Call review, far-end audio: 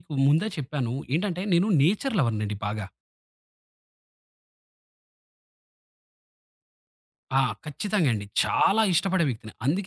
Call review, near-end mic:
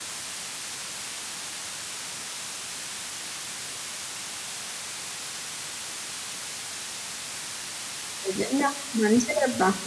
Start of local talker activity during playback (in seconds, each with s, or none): 8.3 s